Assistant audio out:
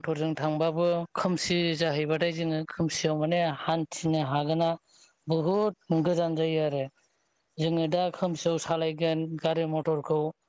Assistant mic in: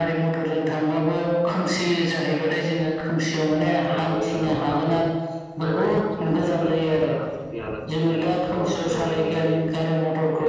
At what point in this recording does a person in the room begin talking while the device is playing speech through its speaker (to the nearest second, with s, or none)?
4 s